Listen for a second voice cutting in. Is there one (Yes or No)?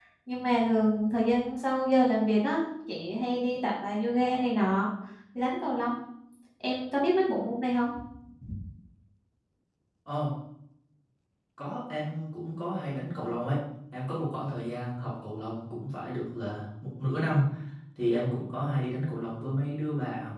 No